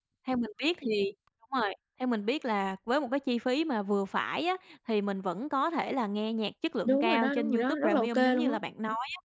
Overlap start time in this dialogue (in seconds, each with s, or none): 6.8 s